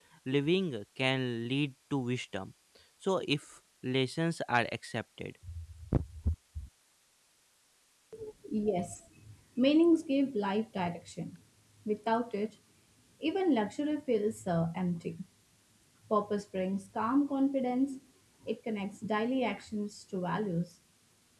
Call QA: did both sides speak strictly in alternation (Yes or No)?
Yes